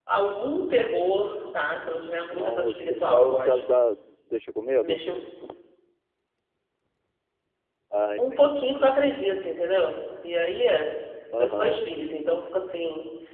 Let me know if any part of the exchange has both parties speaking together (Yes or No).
Yes